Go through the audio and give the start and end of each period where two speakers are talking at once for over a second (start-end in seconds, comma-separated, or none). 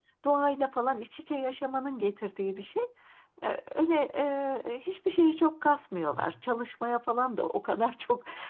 none